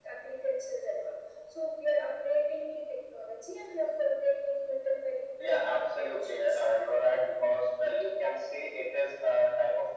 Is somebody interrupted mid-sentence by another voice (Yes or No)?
Yes